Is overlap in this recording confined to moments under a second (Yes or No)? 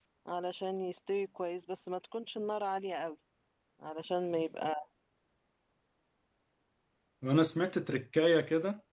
Yes